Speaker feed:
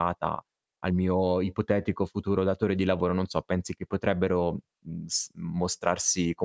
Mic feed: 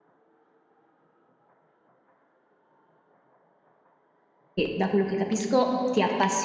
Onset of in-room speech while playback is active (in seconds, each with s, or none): 4.5 s